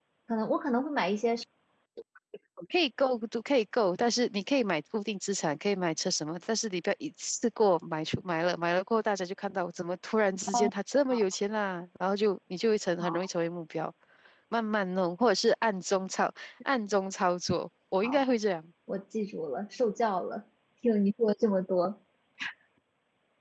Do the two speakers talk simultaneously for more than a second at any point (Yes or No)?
No